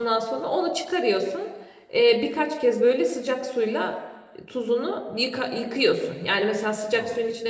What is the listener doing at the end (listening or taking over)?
listening